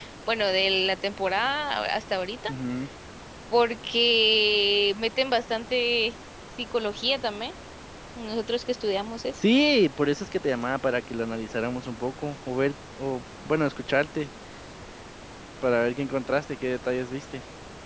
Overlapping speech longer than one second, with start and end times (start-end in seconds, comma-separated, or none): none